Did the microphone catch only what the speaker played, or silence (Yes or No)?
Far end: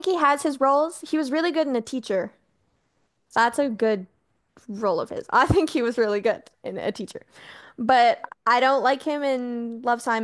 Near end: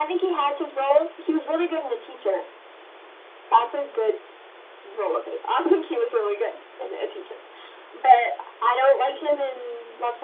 Yes